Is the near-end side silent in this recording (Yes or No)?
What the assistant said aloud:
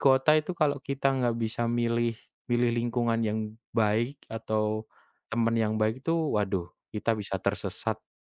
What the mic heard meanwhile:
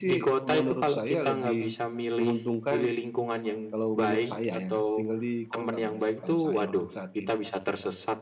No